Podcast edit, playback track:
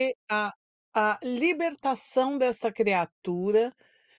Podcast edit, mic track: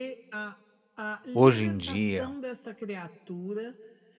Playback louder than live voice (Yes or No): No